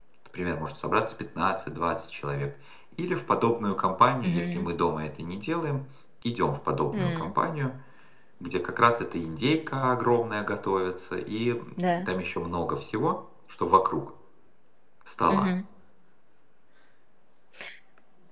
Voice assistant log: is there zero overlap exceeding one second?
Yes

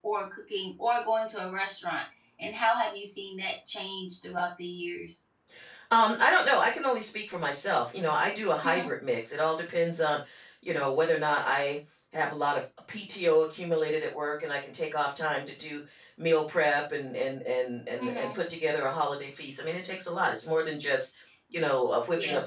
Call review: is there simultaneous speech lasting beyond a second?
No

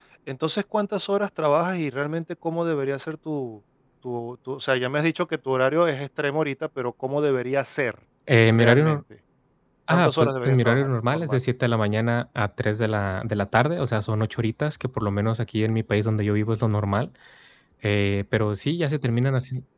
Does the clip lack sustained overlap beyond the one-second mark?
No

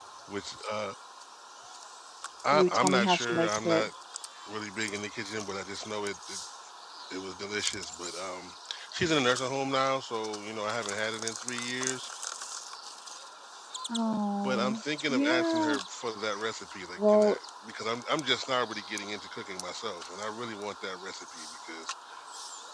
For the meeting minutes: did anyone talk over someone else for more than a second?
Yes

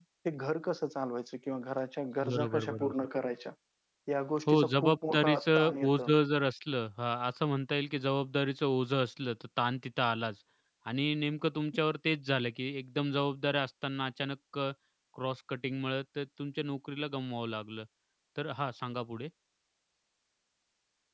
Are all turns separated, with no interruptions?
No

